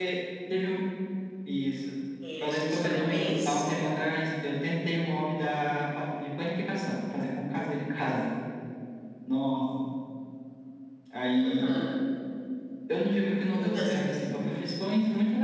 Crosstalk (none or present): present